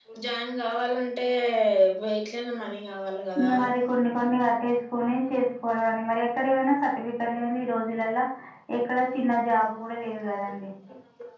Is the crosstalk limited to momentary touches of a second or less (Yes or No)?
Yes